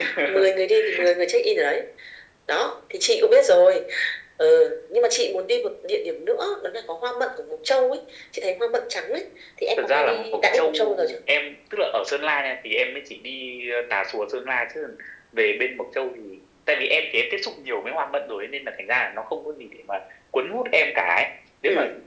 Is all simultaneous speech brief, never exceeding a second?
No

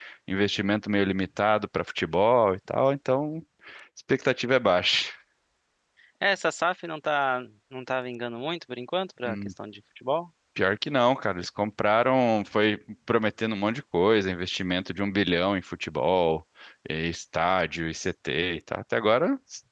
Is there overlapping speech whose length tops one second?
No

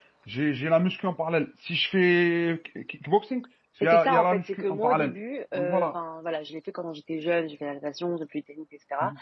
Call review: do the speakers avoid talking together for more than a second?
No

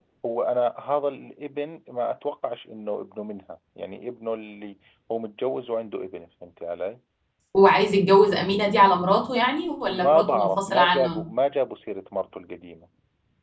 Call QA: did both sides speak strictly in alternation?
No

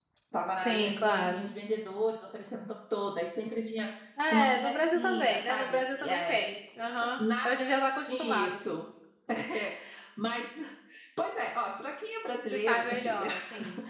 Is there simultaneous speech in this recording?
Yes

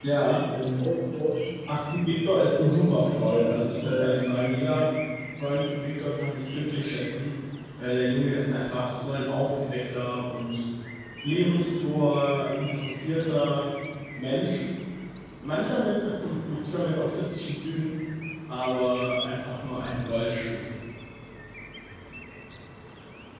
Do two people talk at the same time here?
Yes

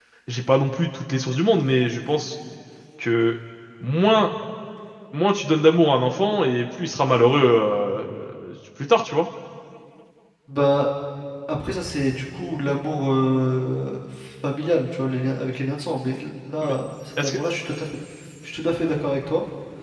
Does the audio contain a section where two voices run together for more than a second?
No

